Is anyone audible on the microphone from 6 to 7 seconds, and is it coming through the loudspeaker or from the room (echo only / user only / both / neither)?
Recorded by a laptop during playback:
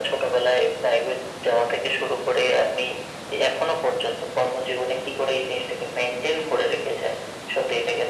echo only